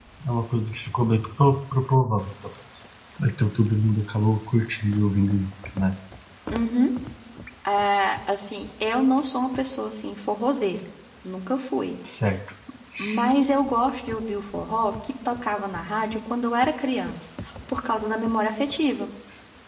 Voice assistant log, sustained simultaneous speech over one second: none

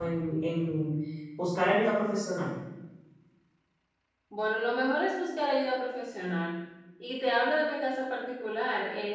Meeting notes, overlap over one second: none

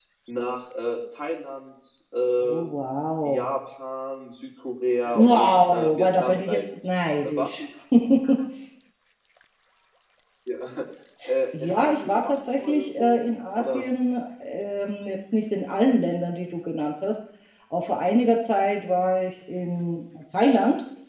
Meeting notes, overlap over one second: present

